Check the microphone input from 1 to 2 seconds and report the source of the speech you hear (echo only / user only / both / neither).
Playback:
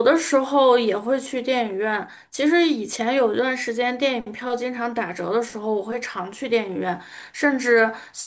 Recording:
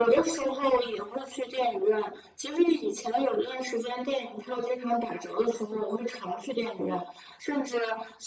echo only